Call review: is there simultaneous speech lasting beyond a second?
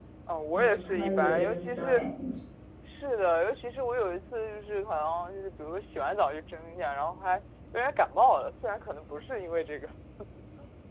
Yes, from 0.5 s

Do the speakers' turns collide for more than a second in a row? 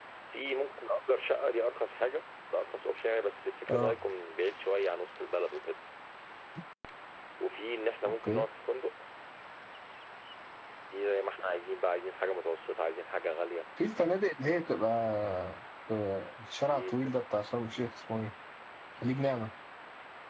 No

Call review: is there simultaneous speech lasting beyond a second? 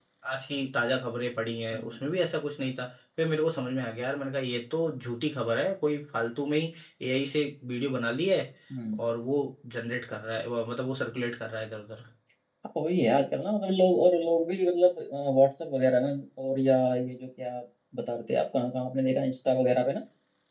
No

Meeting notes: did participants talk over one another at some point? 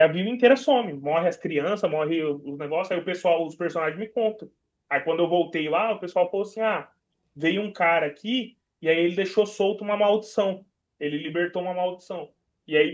No

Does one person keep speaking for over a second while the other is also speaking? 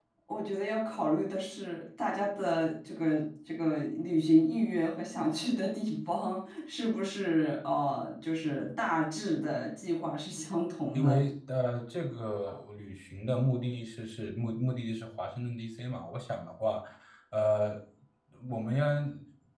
No

